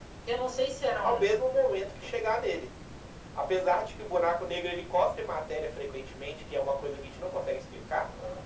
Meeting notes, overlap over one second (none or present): none